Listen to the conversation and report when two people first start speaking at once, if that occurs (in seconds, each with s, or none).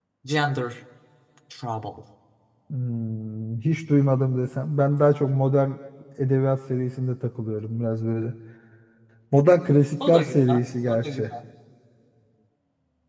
10.1 s